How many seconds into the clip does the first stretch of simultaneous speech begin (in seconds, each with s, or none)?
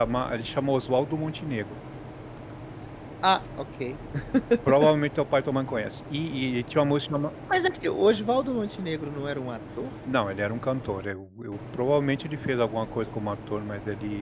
none